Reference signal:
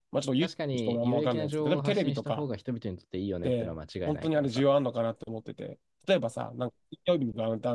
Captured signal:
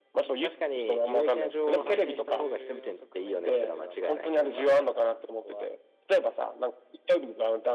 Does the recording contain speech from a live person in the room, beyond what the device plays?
Yes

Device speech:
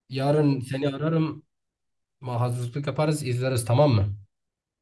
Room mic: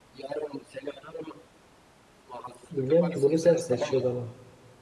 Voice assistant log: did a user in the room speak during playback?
Yes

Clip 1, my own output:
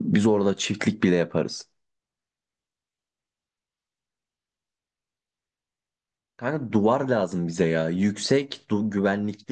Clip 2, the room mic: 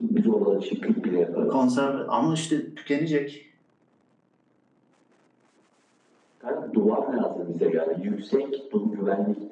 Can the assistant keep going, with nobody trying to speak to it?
No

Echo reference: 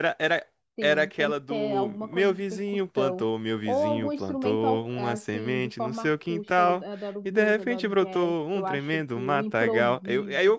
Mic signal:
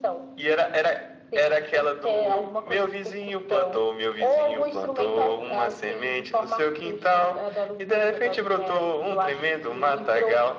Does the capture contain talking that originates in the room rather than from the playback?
No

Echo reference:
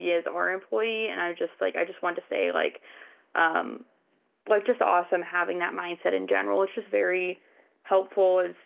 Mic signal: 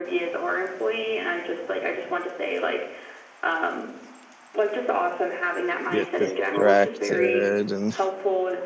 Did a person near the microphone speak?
Yes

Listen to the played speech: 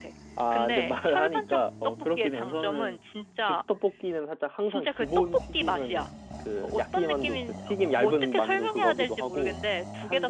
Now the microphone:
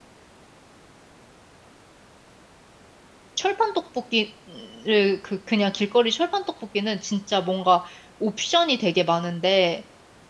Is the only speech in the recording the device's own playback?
No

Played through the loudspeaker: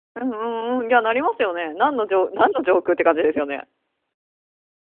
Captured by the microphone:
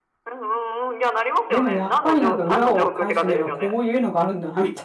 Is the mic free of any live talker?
No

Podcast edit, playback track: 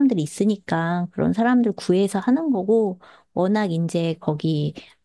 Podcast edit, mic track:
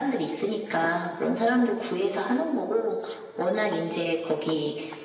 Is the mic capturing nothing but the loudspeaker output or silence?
Yes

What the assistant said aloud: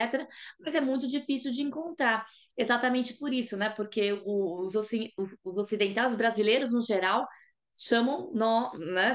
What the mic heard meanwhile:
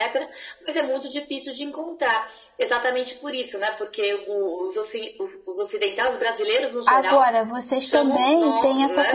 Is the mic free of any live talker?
No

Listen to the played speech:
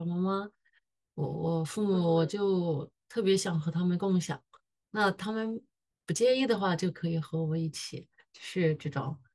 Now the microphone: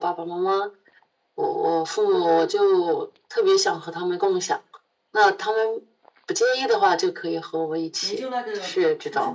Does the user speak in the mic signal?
Yes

